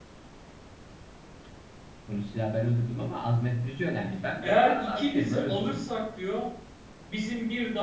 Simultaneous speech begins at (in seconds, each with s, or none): 4.4 s